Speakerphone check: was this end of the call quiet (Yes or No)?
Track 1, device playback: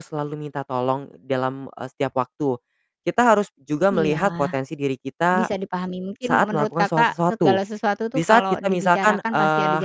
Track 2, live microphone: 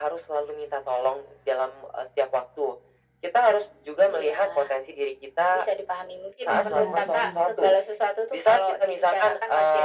No